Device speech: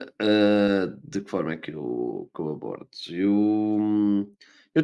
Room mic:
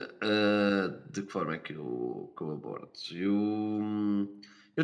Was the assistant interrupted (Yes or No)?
No